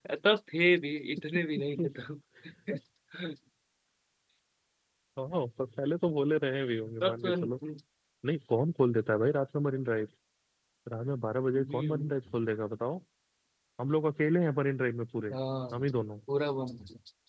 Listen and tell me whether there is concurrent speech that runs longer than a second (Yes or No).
No